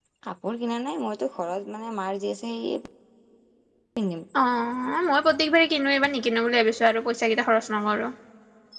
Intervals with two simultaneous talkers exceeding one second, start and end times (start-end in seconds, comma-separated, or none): none